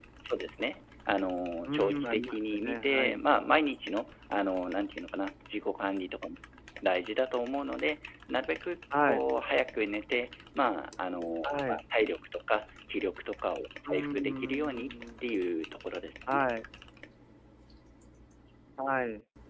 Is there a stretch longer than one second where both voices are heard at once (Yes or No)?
Yes